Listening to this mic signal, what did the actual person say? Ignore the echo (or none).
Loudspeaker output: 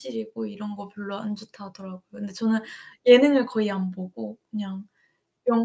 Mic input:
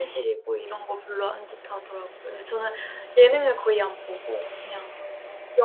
none